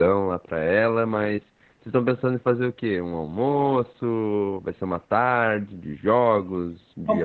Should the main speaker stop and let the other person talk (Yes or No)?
Yes